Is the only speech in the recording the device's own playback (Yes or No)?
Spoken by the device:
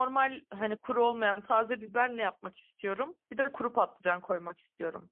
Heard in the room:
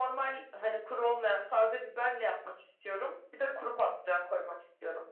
Yes